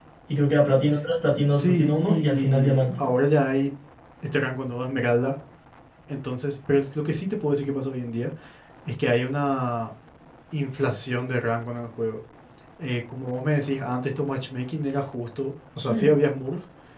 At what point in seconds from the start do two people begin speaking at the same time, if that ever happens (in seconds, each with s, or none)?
1.5 s